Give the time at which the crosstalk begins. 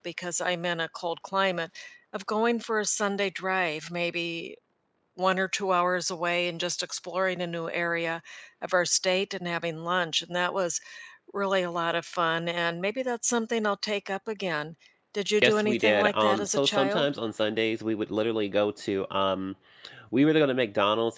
15.4 s

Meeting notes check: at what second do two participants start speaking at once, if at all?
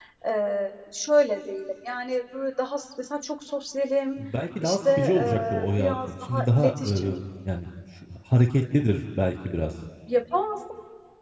4.6 s

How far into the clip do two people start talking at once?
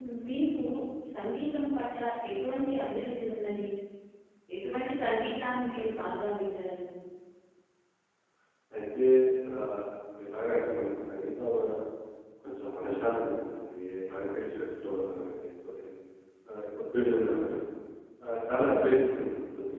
none

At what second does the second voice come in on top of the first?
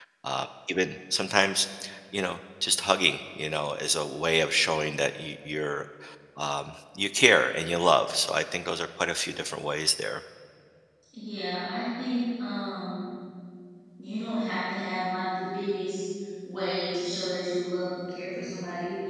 none

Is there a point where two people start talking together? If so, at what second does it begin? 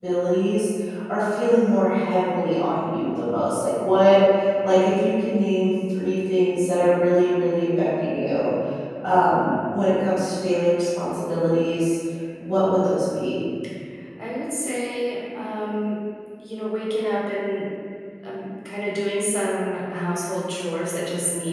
none

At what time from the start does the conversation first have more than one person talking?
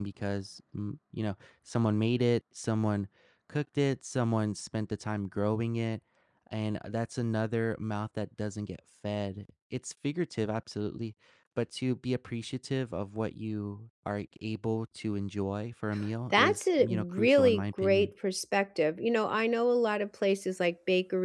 16.3 s

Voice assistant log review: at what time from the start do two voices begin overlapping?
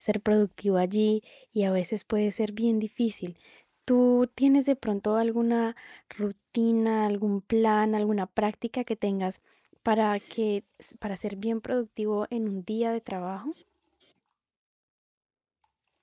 none

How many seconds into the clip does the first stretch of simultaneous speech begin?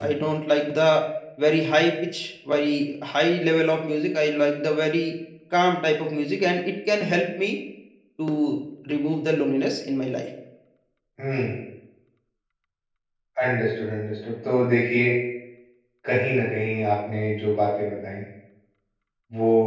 none

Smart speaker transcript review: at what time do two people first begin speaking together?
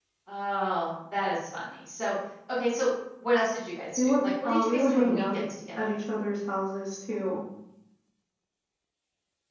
4.0 s

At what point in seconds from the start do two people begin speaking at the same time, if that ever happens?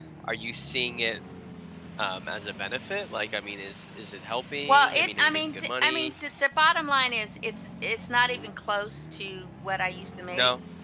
4.7 s

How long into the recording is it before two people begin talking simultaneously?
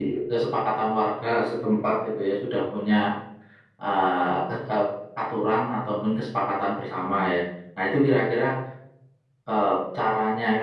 none

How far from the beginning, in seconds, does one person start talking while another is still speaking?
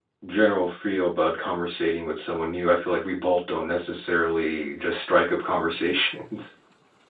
none

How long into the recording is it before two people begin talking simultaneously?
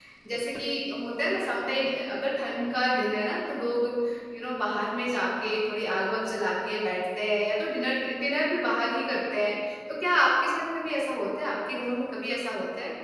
none

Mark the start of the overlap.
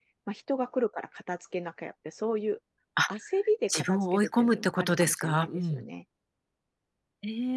3.7 s

